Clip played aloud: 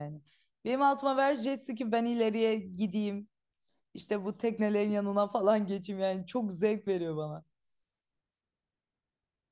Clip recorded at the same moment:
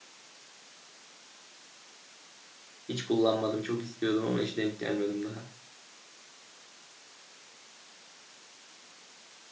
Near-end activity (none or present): present